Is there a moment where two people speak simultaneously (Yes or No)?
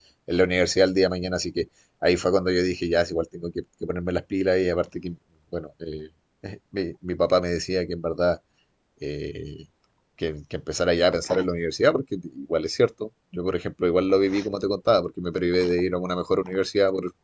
No